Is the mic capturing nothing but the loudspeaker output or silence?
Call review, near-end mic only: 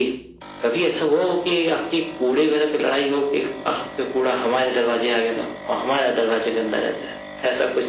Yes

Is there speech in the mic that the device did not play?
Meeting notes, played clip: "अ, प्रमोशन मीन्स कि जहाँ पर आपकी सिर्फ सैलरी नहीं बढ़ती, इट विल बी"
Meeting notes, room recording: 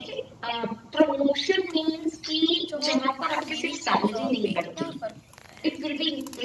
Yes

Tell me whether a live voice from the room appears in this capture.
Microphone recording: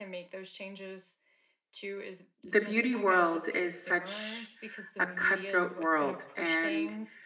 Yes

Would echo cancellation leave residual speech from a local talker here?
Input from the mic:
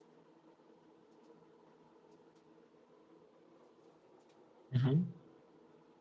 Yes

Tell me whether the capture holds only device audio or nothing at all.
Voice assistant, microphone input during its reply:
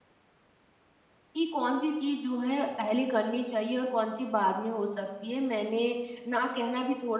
No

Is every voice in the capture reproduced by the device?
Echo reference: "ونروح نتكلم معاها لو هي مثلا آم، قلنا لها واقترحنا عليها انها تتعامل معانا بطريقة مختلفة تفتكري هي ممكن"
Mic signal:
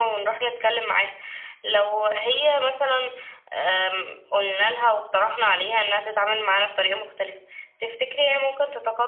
Yes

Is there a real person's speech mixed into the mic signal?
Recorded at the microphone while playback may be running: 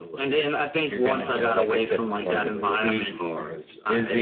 Yes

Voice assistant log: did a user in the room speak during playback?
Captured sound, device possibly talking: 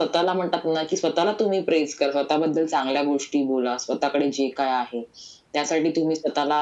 No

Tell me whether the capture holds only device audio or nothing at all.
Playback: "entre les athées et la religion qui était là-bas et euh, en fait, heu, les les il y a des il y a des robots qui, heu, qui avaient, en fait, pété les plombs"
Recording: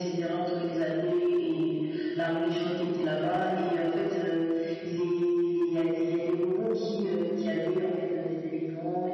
Yes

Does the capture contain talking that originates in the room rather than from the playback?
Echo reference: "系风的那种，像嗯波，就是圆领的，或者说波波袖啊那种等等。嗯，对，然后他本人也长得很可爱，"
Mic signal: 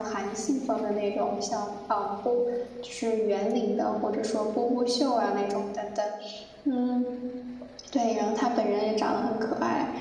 No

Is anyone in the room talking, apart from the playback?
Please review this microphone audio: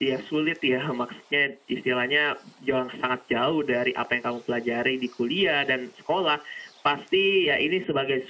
No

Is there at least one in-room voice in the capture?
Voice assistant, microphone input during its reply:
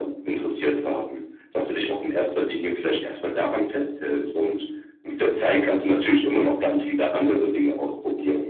No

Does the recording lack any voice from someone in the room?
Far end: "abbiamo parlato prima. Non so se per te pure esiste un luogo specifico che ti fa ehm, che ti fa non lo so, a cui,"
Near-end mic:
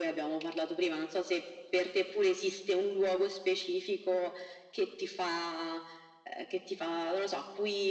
Yes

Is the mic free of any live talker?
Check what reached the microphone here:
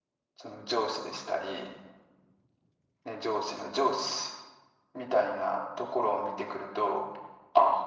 Yes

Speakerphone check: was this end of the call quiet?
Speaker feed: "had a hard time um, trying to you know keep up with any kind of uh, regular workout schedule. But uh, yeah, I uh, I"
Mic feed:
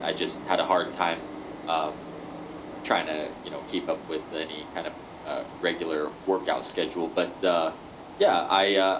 Yes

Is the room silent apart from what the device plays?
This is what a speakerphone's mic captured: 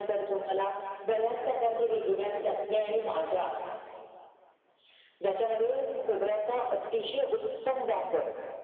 Yes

